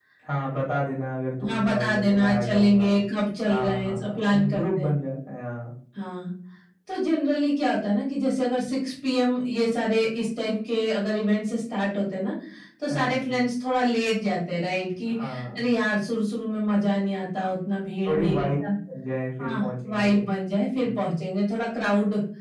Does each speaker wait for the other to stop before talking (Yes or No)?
No